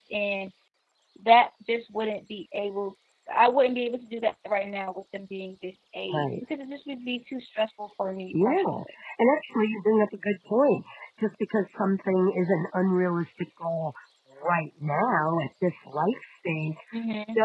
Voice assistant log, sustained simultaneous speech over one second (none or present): none